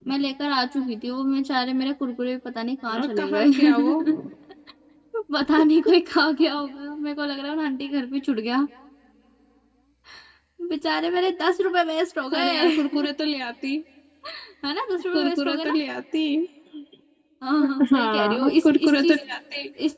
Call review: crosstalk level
present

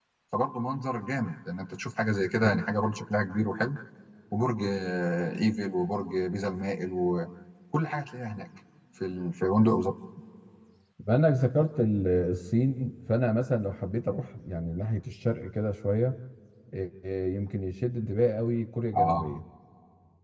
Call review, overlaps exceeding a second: none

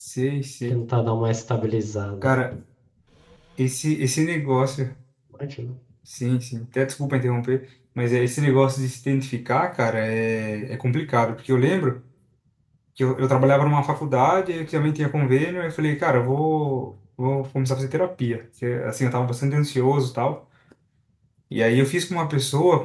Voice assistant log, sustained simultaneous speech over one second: none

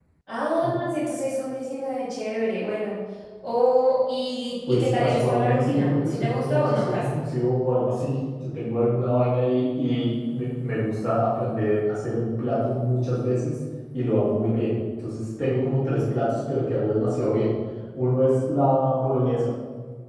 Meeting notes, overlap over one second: present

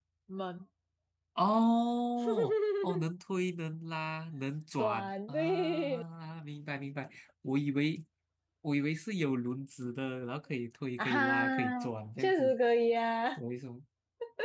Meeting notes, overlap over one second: present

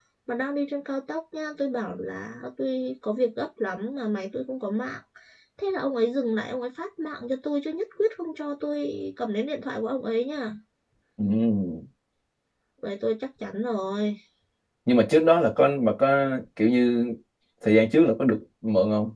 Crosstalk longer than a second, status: none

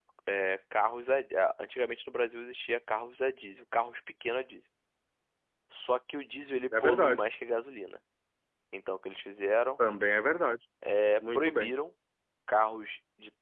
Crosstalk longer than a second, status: none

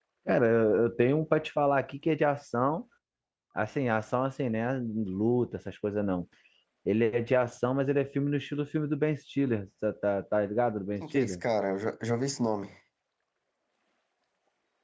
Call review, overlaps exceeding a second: none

